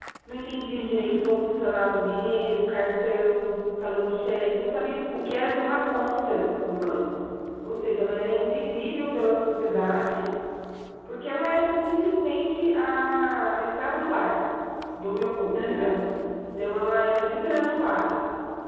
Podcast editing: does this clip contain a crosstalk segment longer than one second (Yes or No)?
No